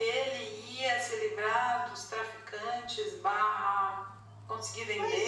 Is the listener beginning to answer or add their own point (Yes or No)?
Yes